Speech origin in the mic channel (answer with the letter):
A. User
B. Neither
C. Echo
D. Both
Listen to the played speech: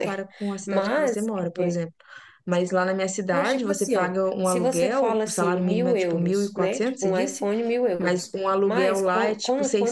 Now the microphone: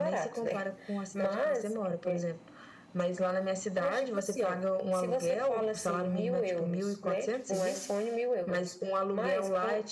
C